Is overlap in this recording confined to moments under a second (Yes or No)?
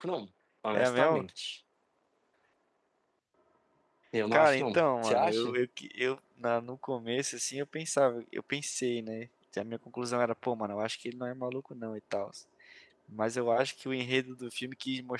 No